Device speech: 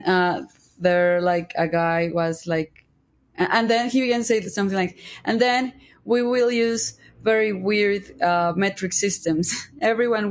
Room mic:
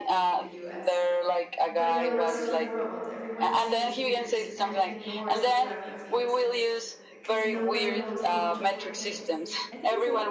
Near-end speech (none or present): present